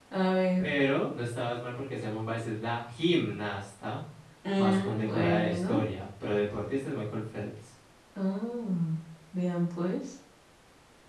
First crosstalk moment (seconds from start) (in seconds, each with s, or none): 4.6 s